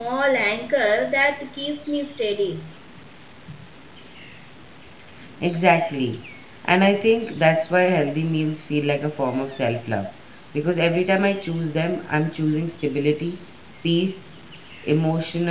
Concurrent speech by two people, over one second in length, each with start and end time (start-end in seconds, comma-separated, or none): none